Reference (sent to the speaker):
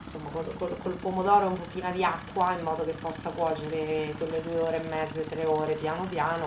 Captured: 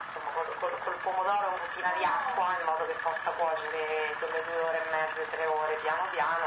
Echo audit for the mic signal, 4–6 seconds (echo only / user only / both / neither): echo only